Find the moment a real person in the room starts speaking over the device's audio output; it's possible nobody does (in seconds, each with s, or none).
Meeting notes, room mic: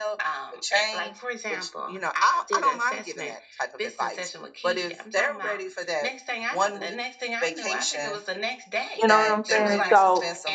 9.0 s